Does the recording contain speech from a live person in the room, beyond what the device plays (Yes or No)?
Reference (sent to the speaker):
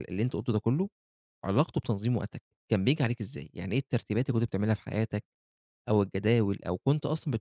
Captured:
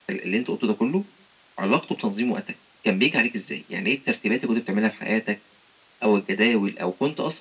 No